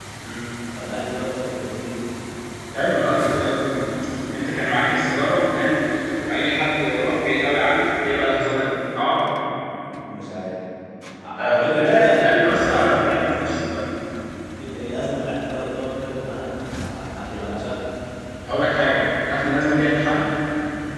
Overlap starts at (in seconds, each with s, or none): 11.4 s